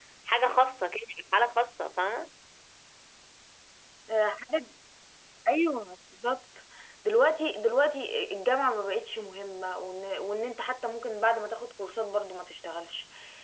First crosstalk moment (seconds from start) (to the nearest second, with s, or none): none